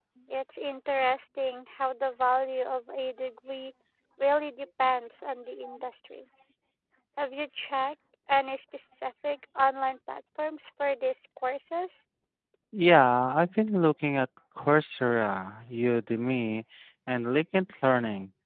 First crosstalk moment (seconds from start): none

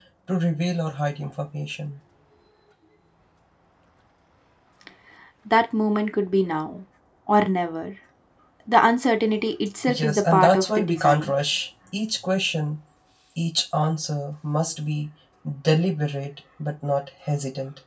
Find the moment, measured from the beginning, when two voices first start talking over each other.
10 s

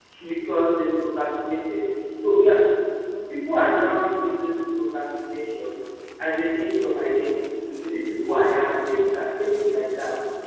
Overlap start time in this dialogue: none

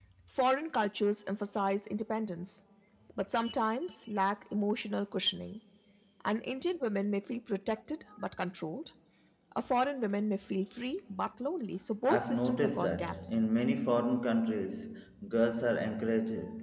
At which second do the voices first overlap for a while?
12 s

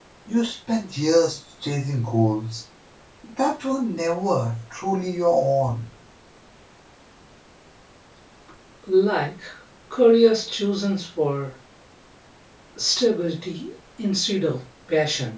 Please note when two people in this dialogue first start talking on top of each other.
none

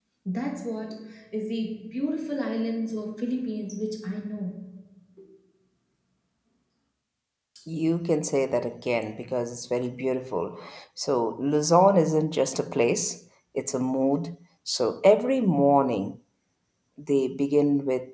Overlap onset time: none

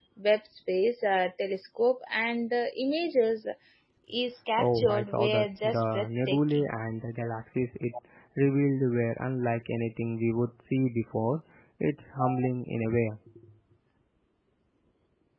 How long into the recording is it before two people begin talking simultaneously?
5 s

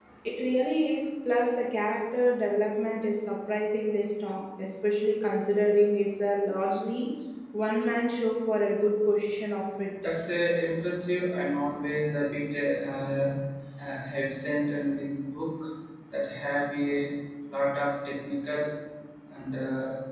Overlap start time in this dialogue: none

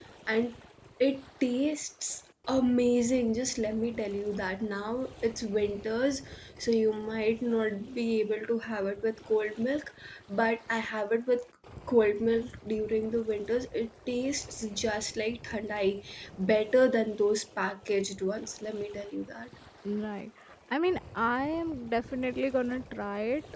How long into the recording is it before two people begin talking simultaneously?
none

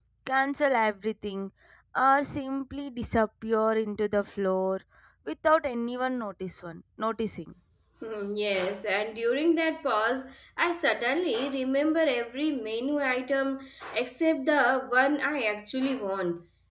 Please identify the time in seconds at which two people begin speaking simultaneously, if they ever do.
none

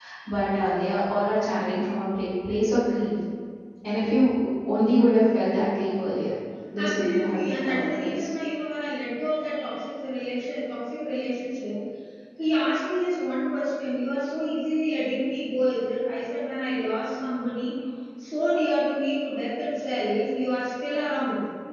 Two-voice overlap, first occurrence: 7 s

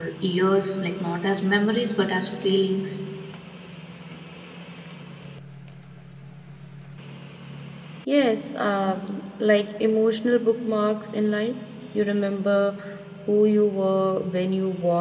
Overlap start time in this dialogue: none

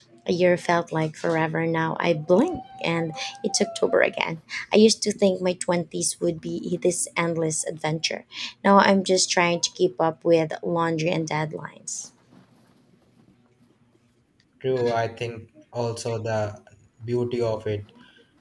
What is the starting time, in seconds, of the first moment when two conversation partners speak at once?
none

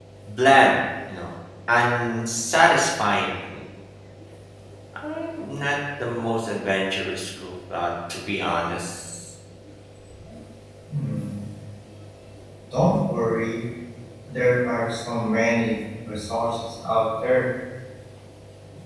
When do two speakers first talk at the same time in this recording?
none

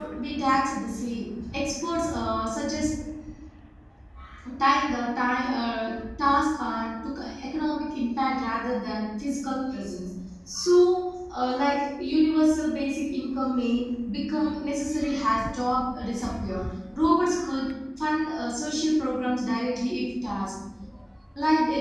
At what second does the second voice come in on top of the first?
none

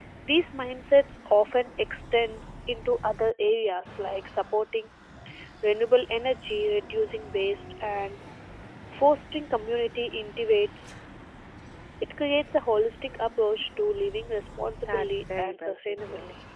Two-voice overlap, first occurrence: 15 s

